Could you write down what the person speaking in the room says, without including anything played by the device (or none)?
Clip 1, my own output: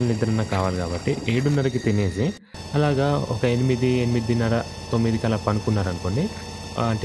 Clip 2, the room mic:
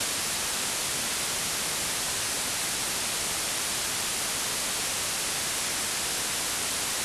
none